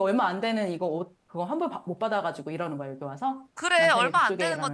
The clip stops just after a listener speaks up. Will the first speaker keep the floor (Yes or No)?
No